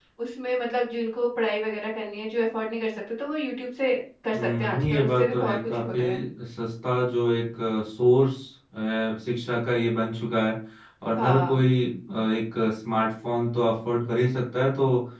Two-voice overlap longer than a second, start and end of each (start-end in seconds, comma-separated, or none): 4.3-6.0